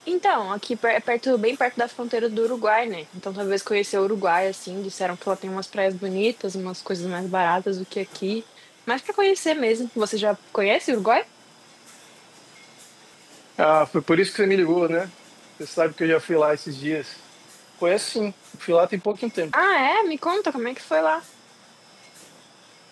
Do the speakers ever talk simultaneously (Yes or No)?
No